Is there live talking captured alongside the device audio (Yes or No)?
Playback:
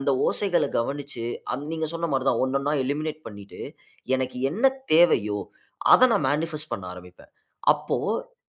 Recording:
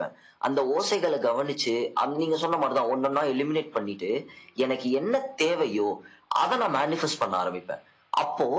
No